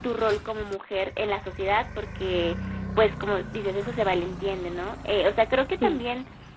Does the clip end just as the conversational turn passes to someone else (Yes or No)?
No